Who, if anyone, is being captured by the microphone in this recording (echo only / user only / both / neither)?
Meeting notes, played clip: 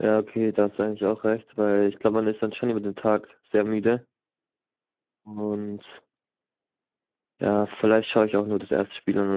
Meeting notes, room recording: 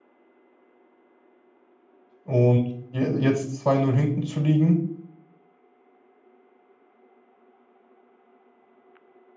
user only